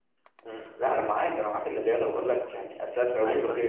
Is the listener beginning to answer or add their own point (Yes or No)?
No